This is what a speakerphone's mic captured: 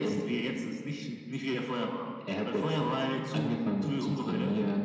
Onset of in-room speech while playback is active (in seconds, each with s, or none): none